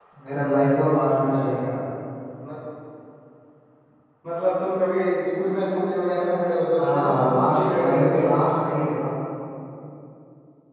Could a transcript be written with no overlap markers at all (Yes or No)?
No